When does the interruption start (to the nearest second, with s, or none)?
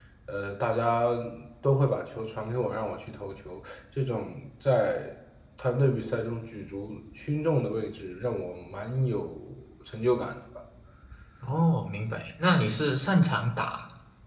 none